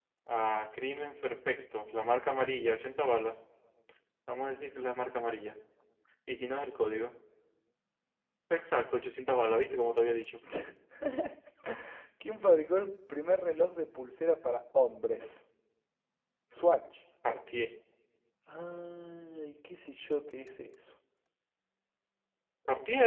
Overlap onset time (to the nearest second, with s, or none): none